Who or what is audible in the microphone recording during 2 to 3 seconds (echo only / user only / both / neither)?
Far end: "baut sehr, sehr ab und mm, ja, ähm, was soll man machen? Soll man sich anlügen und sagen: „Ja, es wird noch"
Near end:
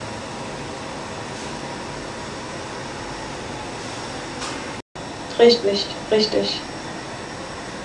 neither